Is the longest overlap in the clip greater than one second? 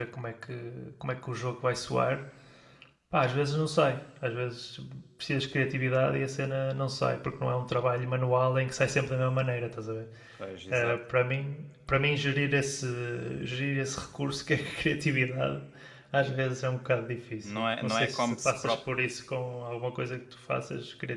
Yes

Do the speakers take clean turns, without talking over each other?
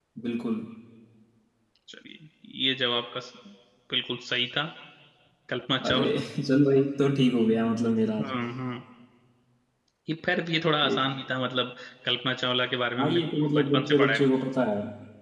No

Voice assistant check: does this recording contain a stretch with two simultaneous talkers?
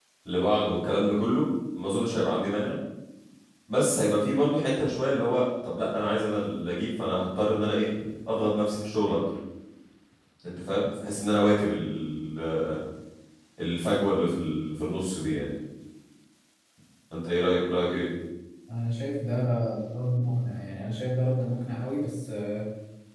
No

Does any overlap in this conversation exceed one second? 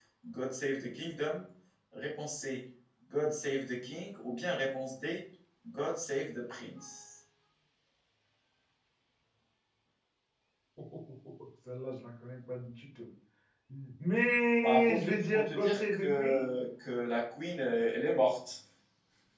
Yes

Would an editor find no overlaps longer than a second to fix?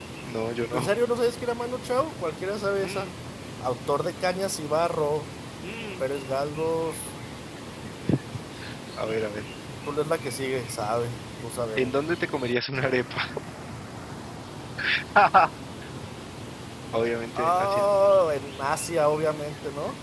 Yes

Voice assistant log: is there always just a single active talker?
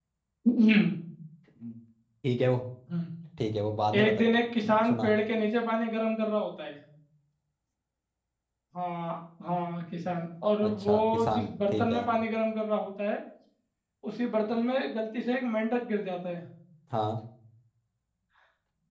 No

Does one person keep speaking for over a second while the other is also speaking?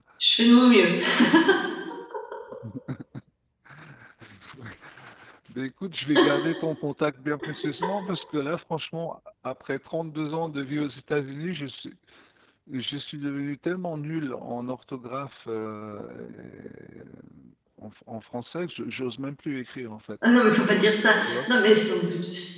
No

